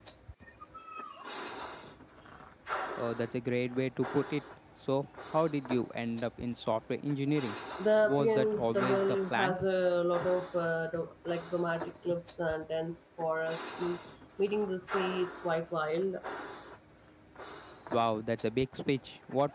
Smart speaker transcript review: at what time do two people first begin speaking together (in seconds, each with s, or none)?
8.0 s